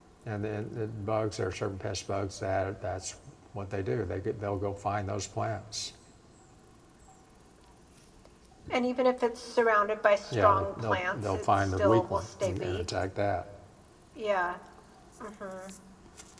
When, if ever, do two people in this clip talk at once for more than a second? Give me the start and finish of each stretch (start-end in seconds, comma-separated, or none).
10.3-12.8